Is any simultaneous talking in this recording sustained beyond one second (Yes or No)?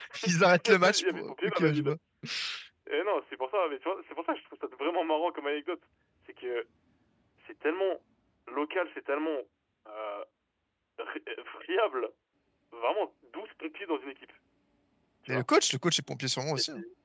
Yes